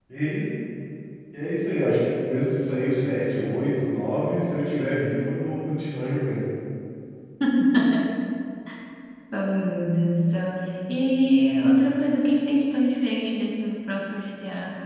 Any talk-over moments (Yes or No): No